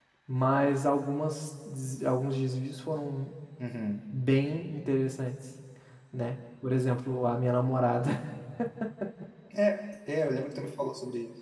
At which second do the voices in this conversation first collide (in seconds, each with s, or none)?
none